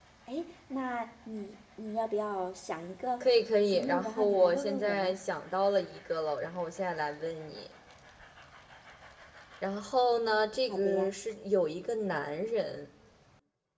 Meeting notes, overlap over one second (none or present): present